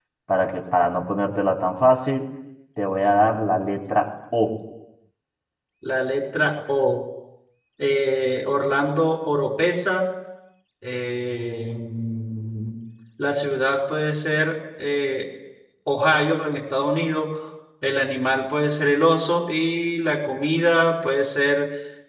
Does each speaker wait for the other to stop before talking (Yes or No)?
Yes